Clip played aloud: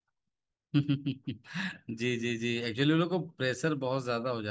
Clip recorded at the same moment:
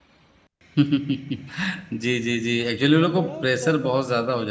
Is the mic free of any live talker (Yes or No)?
No